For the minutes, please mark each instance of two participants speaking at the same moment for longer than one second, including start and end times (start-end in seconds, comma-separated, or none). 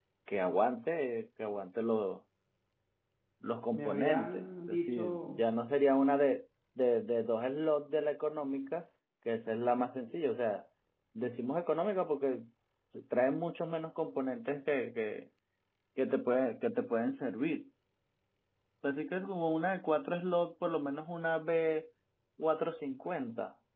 3.7-5.4